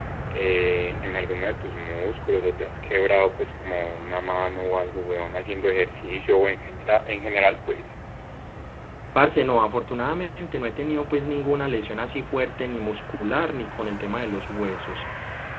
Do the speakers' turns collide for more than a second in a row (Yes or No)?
No